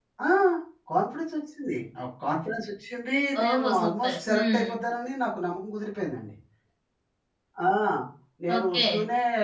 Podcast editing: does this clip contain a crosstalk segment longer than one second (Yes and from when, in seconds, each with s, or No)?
Yes, from 3.4 s